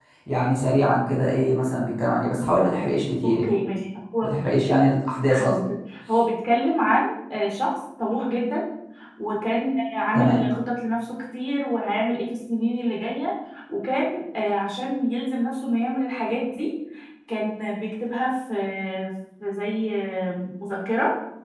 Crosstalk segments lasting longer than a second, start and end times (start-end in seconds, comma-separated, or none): none